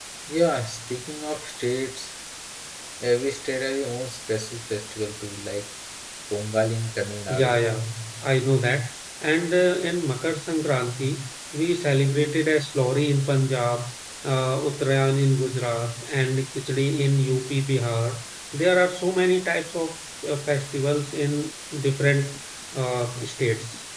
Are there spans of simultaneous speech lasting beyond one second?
No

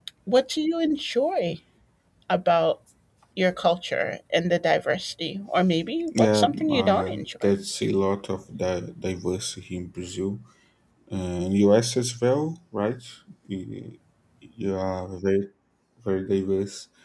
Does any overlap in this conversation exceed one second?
Yes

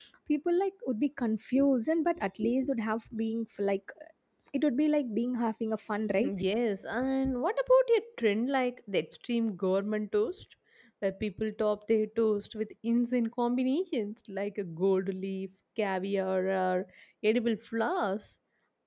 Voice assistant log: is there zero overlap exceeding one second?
Yes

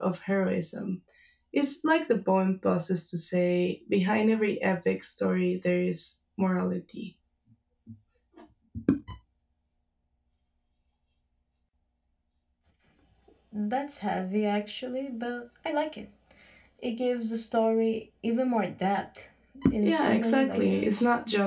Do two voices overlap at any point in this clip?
Yes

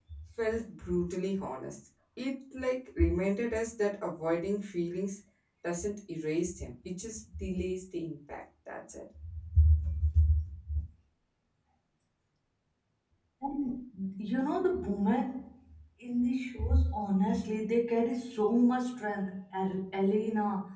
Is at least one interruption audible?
No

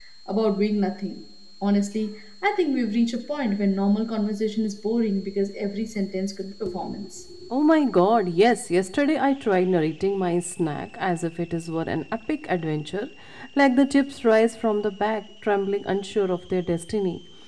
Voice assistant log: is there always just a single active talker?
Yes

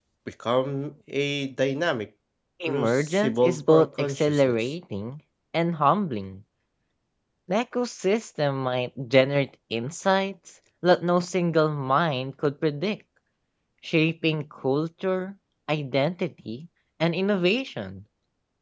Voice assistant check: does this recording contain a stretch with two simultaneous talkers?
Yes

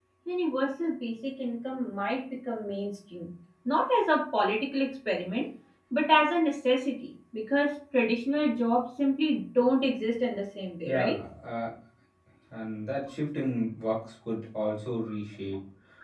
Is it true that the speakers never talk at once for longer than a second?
Yes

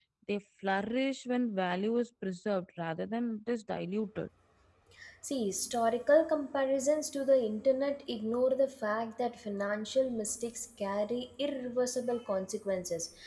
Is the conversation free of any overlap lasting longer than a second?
Yes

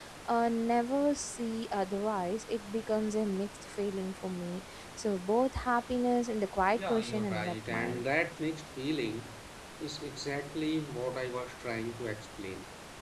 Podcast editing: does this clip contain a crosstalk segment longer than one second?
Yes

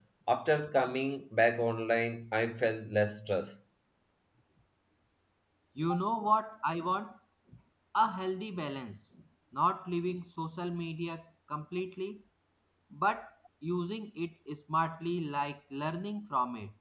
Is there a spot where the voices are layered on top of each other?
No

